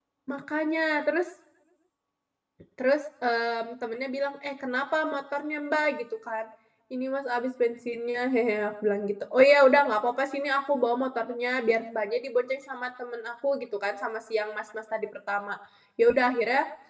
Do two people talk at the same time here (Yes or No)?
No